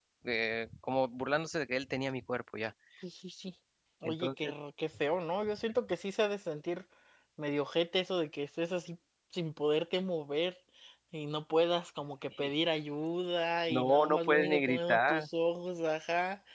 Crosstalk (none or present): present